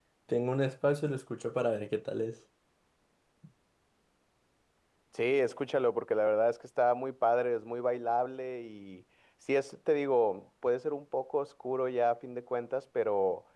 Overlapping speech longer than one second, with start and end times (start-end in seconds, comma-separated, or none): none